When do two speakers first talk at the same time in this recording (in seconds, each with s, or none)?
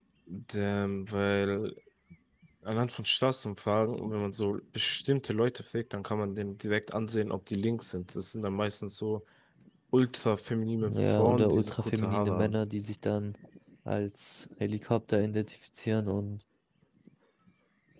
10.8 s